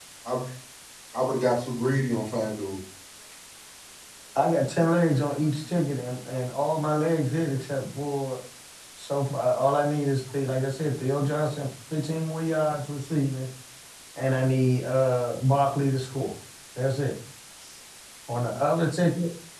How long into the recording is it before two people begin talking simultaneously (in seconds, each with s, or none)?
none